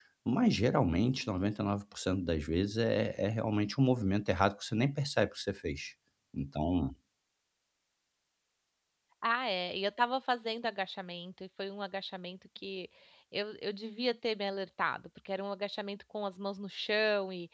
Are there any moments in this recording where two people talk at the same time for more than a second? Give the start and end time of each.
none

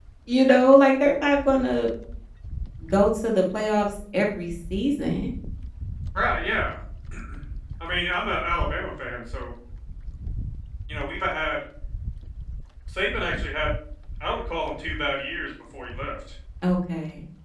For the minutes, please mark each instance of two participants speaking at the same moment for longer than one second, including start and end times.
none

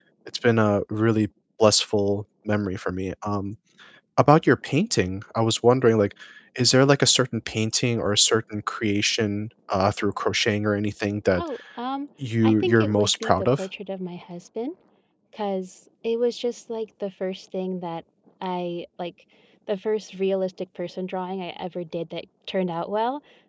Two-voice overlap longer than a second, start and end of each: 12.4-13.7

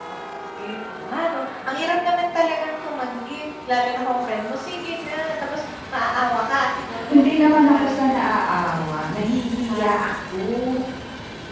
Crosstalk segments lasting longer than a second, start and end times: 7.1-8.5

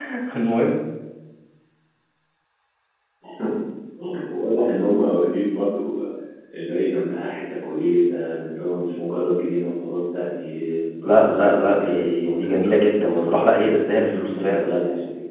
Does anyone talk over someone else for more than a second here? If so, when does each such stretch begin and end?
11.0-14.7

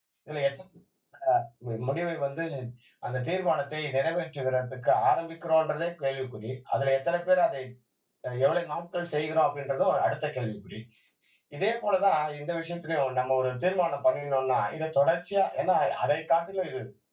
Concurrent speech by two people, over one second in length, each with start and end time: none

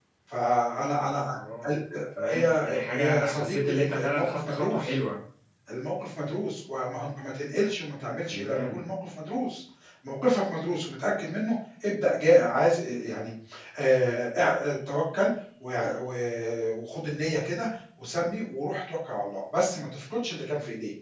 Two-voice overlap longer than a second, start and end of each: 2.3-5.0

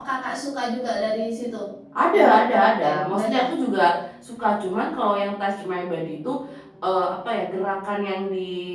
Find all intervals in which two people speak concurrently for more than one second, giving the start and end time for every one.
2.1-3.5

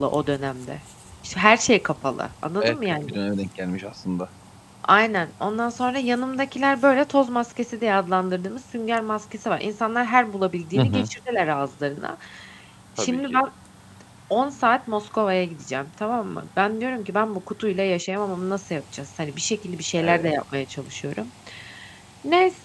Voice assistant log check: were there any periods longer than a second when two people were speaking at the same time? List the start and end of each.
none

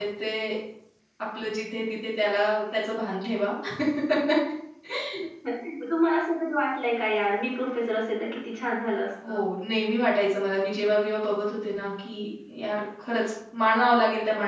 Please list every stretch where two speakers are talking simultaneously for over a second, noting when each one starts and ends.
none

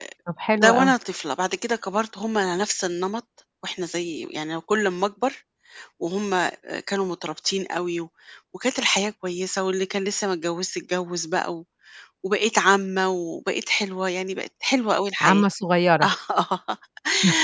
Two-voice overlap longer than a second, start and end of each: none

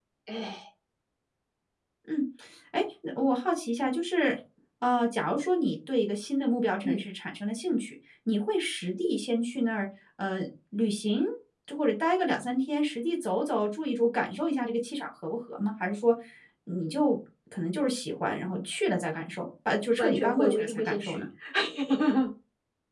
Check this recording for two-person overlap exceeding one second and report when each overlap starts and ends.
20.0-21.2

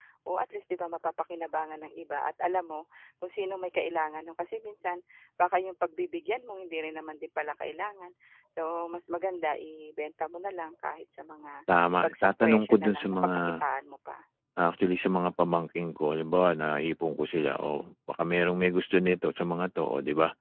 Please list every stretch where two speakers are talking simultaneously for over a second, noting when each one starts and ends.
12.0-13.4

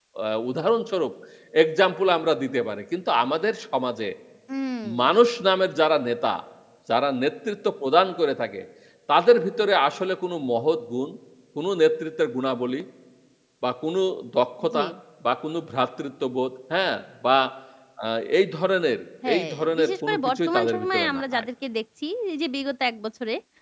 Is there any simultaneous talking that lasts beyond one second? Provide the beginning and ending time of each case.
19.3-21.4

